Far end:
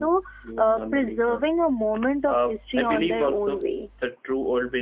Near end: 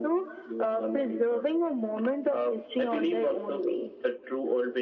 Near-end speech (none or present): none